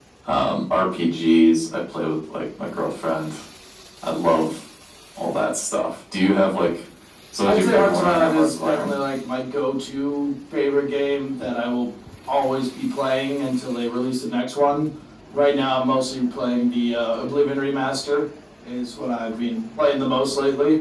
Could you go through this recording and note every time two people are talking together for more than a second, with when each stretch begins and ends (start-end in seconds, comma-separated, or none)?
7.4-8.9